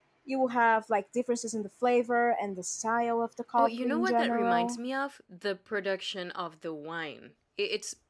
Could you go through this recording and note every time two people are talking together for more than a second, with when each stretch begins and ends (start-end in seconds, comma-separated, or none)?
3.6-4.8